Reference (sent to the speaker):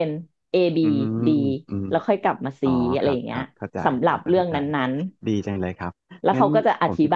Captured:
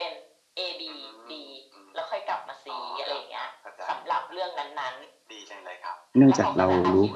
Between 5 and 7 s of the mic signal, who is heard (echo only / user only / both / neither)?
both